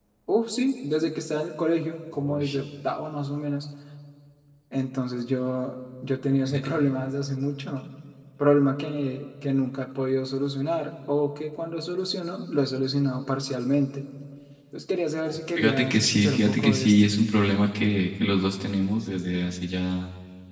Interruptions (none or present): present